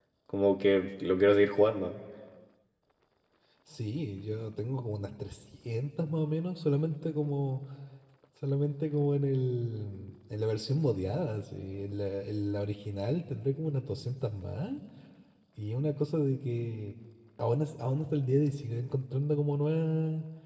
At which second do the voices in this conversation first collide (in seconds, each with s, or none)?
none